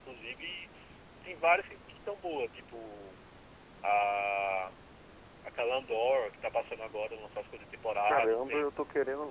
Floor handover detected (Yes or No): Yes